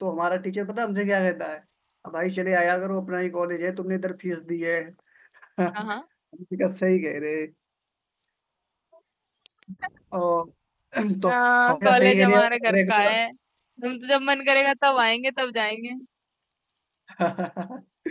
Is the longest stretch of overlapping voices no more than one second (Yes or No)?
No